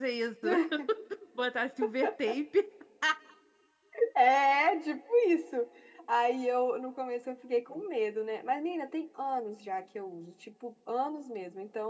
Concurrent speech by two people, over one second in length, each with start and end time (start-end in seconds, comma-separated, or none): none